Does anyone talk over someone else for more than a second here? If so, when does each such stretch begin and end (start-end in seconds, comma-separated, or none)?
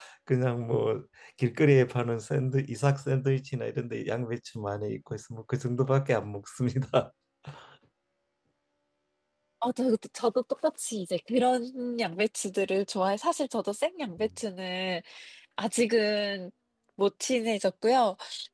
none